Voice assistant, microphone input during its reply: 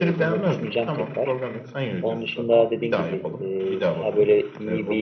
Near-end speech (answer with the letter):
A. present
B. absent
A